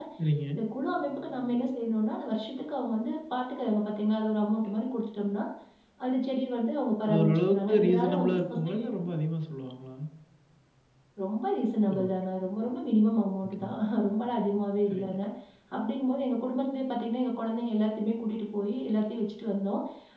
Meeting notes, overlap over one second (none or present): present